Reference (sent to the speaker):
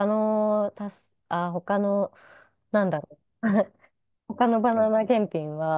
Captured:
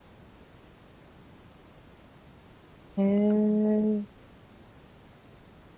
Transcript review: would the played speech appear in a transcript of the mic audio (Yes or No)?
No